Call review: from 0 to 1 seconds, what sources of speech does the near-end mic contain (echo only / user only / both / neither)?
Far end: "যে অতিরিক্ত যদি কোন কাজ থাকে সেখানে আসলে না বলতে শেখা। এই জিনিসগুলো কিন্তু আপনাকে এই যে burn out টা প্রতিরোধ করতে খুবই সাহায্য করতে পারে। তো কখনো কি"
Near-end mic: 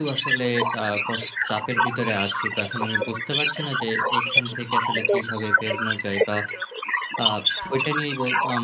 both